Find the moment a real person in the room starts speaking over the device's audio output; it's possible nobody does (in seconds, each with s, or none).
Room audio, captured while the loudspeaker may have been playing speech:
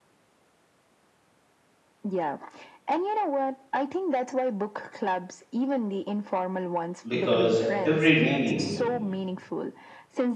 7.0 s